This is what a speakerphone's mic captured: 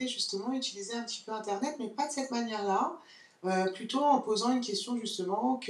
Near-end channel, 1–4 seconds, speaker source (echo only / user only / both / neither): user only